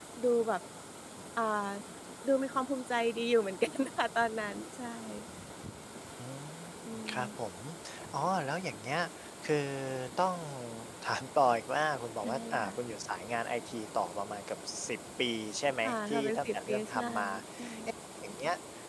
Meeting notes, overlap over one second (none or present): present